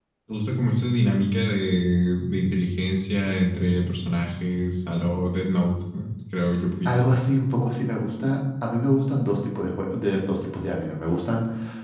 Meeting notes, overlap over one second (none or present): none